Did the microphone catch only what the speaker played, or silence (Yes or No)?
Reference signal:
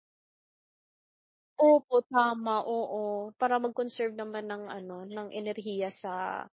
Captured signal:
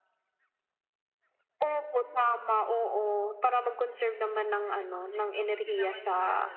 No